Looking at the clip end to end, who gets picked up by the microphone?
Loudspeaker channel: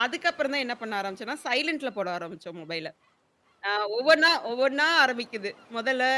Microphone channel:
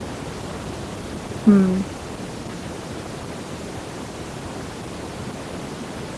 user only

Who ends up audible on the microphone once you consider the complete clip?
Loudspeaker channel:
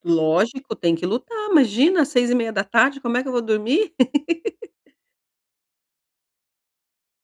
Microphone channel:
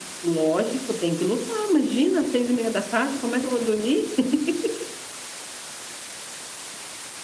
echo only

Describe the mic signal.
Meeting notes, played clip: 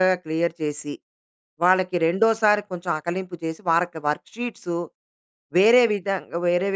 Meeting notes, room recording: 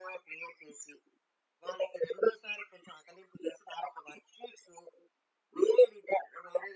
echo only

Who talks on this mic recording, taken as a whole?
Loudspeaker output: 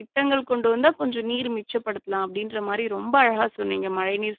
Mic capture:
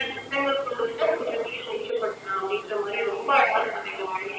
echo only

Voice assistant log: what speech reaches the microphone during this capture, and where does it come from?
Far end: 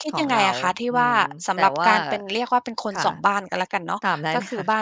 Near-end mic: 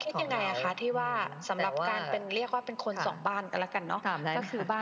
echo only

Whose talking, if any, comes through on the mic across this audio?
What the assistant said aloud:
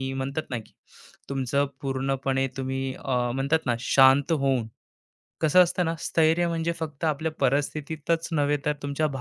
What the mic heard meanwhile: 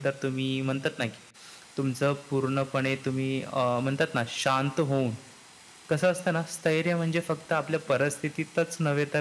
echo only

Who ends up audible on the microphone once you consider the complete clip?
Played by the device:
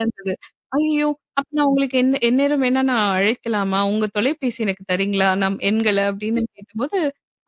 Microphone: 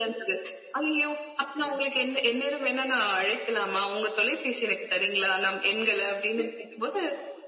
echo only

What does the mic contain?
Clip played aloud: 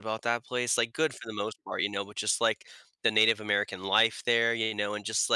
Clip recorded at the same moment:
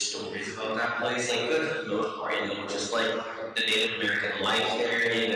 echo only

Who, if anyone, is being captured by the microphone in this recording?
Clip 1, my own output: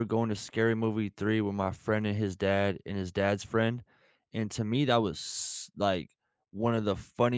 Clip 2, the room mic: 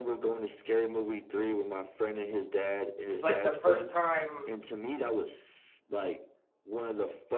both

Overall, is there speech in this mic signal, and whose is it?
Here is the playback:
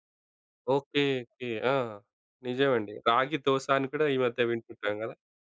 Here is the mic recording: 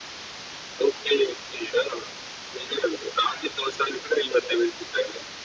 echo only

